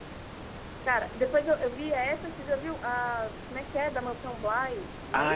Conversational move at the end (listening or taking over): taking over